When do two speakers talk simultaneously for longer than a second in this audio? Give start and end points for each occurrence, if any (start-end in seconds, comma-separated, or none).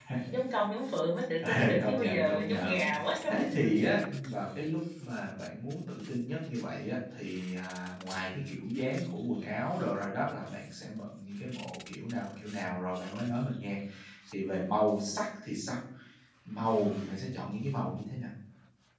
1.5-3.9